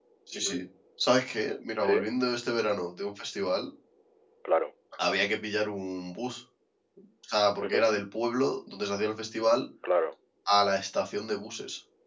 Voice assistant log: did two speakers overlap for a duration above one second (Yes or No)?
No